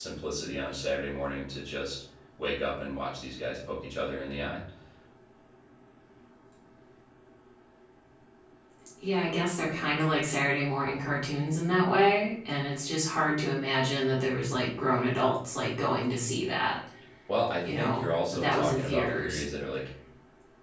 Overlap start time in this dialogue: 17.8 s

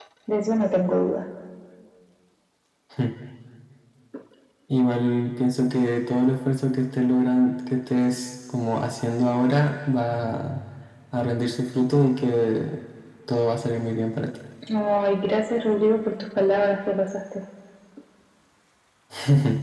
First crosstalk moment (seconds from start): none

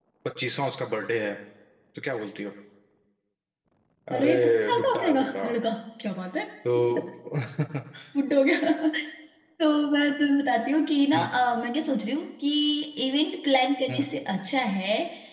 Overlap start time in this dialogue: 4.2 s

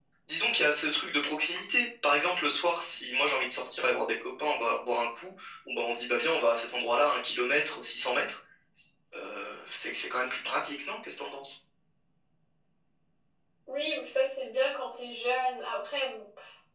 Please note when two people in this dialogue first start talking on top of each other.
none

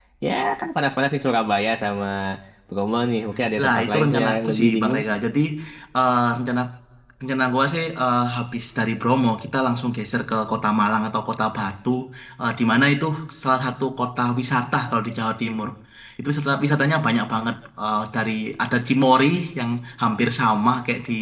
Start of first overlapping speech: 3.6 s

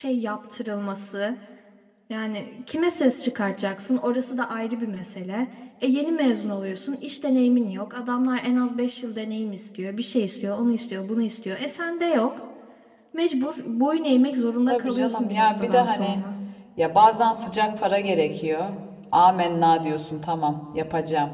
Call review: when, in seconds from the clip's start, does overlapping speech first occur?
14.7 s

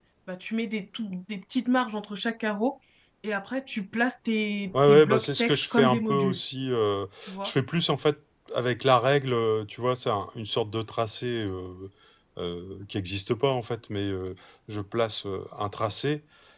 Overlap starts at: 4.7 s

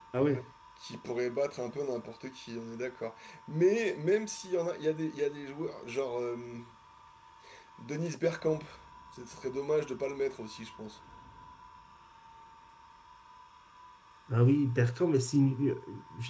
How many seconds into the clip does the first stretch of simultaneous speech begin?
none

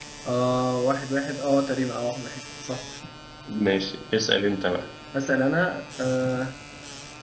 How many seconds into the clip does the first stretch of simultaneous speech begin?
none

